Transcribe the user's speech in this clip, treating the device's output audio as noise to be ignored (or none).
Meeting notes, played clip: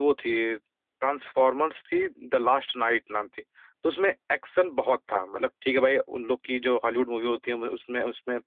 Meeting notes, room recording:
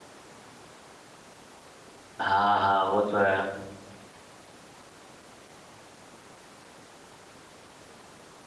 हाँ हाँ वो तो है